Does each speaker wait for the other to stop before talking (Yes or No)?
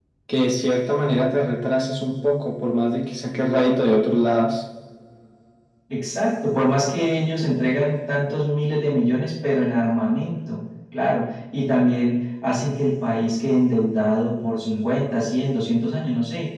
Yes